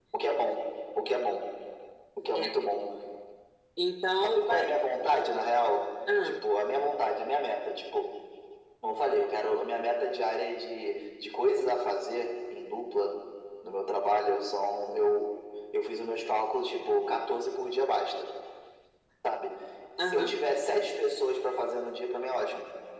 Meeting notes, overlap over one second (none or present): none